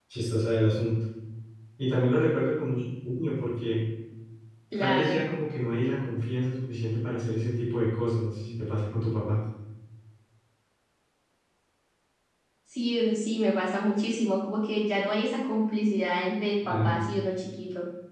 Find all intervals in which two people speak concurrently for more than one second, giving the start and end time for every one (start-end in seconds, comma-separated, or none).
none